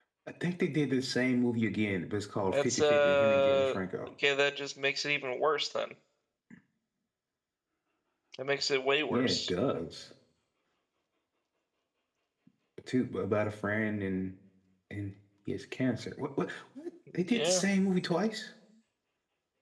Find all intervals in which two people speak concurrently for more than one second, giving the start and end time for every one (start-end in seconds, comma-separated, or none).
2.5-3.8